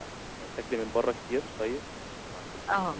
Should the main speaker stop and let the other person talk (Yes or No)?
Yes